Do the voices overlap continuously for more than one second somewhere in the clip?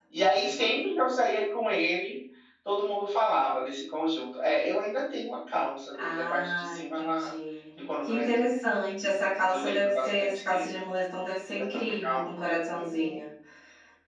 Yes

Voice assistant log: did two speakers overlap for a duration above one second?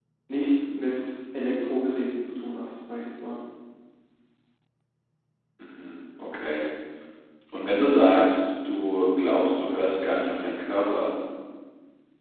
No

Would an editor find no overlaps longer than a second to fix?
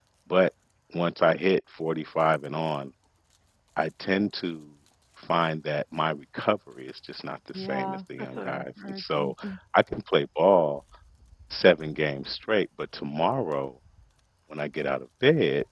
No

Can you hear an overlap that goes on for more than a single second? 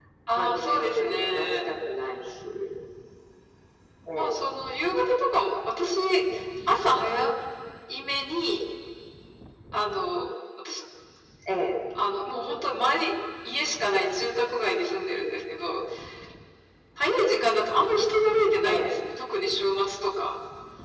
Yes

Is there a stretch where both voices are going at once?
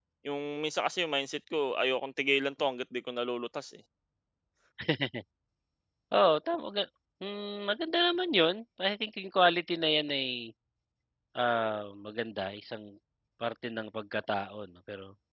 No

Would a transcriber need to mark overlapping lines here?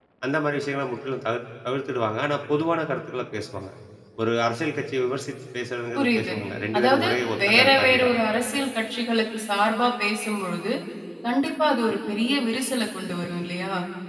Yes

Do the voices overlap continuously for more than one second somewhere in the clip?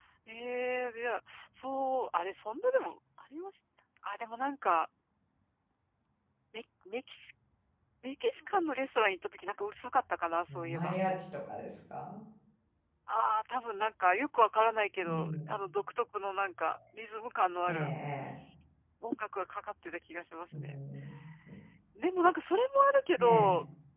No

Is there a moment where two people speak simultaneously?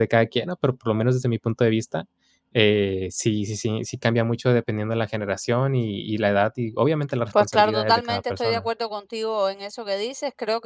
Yes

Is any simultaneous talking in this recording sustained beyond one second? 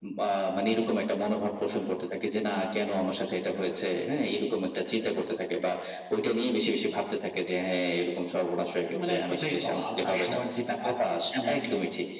Yes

